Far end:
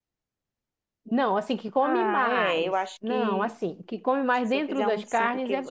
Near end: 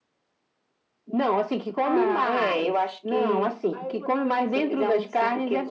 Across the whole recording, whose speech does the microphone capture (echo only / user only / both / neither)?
both